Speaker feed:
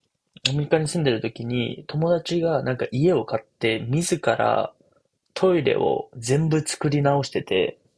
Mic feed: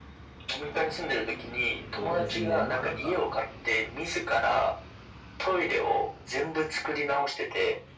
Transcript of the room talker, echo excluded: そうですね。まあなんか、

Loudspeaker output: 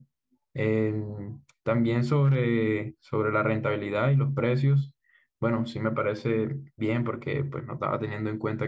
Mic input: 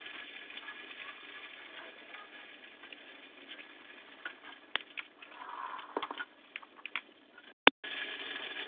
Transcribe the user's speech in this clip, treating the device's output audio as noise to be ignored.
none

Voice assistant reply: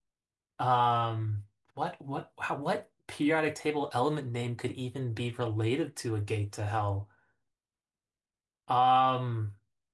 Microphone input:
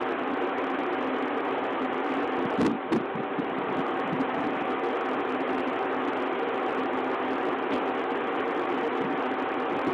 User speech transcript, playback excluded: none

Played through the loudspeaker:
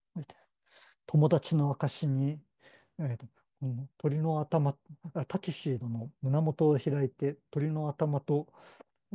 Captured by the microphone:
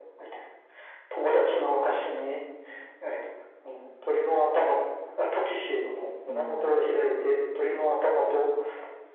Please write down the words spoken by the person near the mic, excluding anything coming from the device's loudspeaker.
うん、

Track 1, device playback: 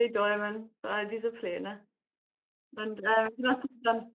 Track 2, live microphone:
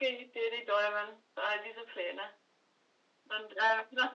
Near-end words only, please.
none

